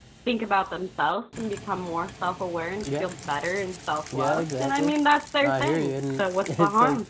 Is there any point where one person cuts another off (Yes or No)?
Yes